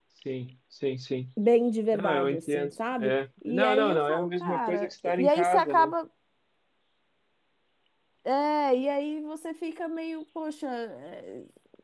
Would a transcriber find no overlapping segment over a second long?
No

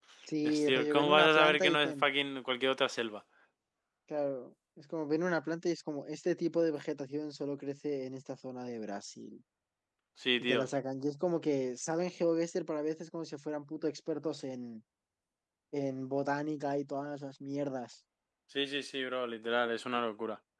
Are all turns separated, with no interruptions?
No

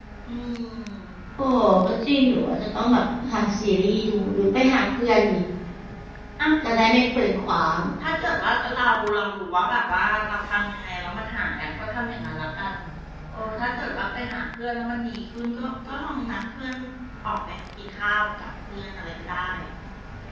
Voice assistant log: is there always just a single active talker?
Yes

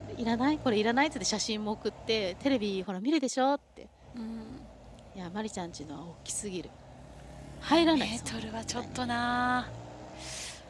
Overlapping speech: Yes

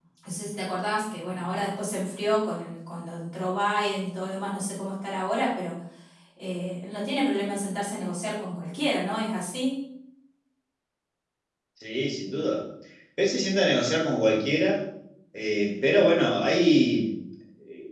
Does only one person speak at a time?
Yes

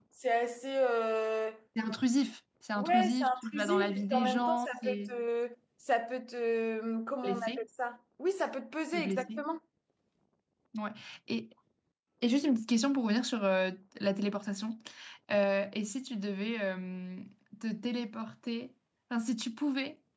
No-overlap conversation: No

